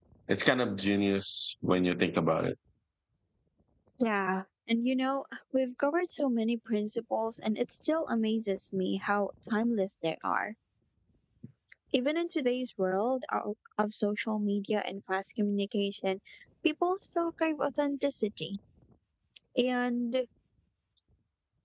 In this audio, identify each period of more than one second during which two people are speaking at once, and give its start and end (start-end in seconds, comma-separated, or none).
none